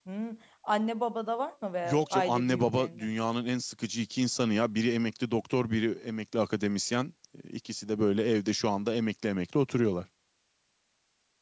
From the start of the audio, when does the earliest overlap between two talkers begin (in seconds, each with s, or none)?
1.8 s